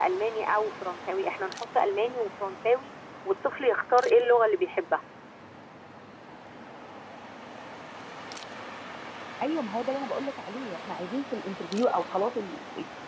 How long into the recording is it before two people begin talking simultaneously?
none

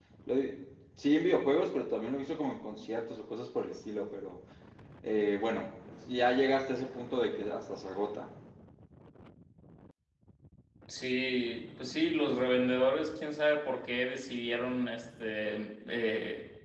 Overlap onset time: none

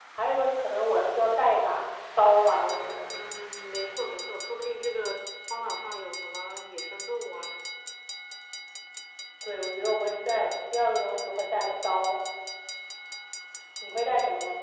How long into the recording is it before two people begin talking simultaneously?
none

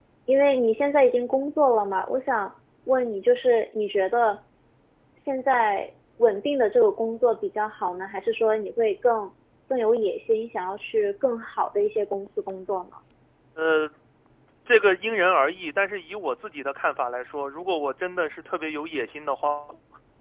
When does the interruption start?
none

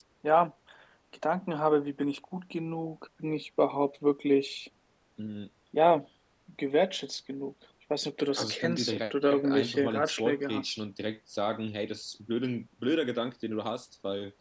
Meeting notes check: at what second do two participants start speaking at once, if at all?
8.4 s

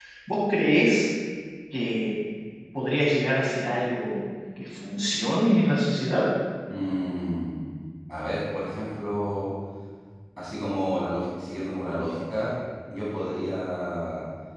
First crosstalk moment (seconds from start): none

